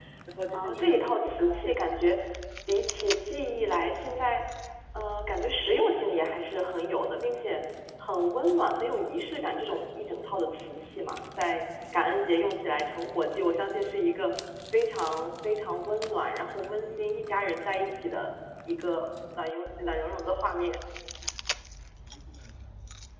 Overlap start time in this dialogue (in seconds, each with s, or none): 0.5 s